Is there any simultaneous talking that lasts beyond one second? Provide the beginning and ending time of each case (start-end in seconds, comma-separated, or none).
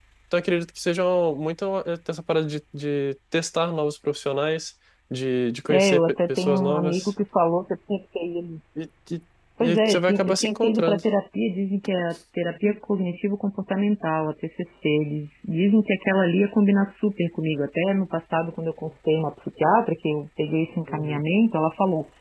5.7-7.1, 9.6-11.0